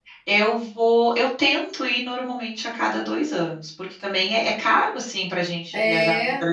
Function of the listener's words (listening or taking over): taking over